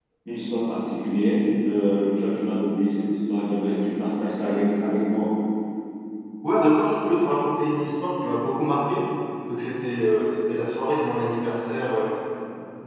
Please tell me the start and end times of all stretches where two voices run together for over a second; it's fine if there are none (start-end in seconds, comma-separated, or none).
none